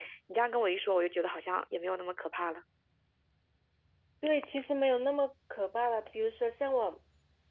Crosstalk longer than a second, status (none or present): none